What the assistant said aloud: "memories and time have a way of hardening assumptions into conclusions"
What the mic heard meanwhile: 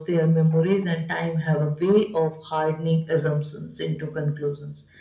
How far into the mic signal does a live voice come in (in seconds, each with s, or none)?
none